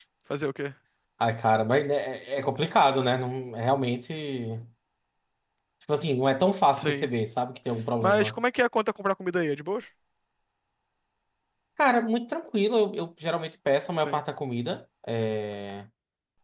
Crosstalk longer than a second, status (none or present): none